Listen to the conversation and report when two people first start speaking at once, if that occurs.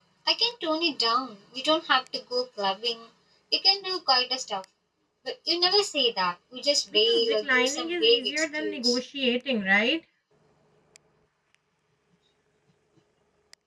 7 s

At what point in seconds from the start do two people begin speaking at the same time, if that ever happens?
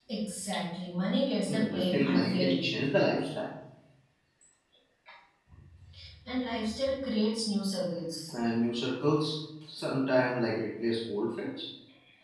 1 s

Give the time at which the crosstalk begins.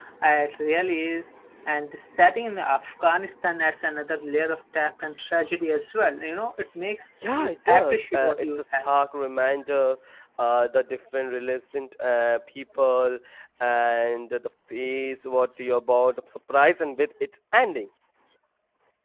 7 s

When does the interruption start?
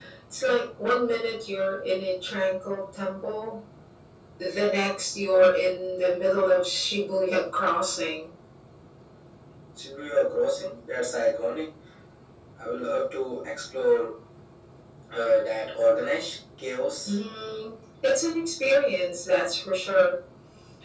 none

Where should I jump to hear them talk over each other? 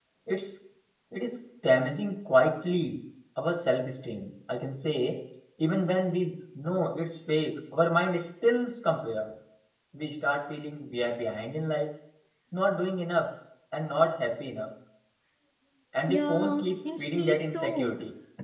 16 s

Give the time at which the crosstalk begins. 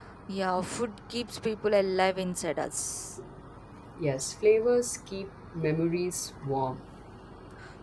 none

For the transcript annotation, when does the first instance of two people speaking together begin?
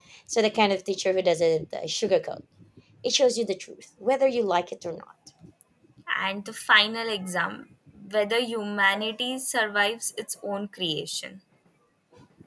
none

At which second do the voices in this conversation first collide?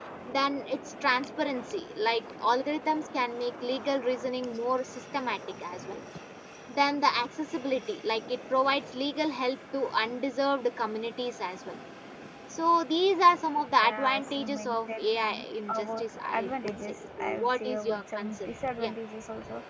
14 s

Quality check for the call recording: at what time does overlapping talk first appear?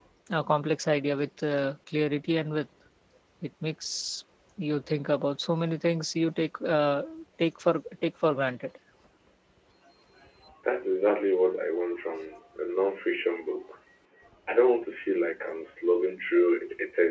none

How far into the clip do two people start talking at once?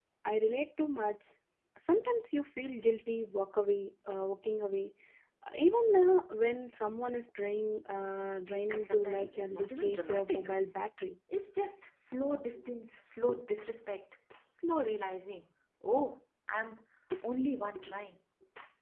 9 s

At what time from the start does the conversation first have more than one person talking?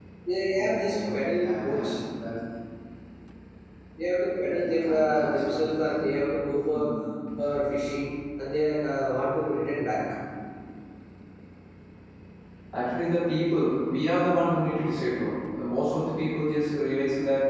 1 s

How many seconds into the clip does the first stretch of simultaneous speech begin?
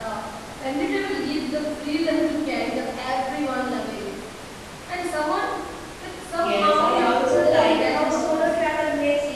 6 s

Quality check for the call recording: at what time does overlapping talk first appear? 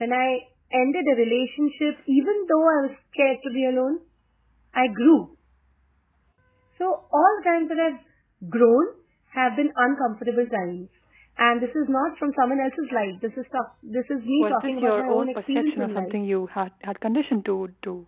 14 s

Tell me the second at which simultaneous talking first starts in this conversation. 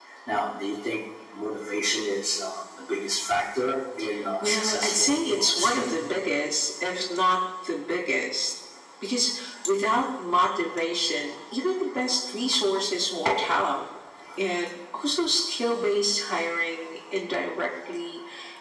4 s

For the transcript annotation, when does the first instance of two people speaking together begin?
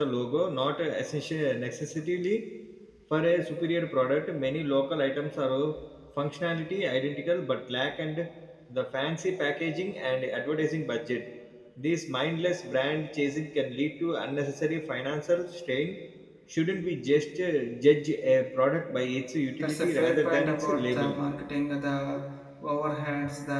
20 s

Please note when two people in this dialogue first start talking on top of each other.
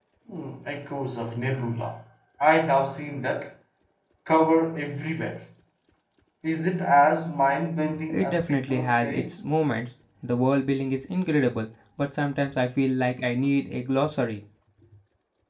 8 s

